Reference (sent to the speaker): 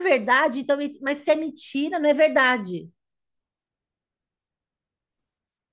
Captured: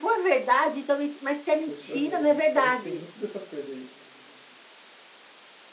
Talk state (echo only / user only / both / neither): both